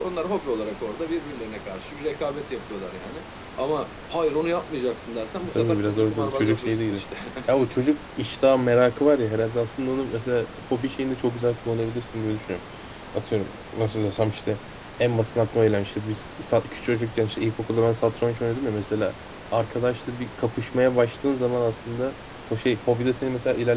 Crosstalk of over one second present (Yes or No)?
Yes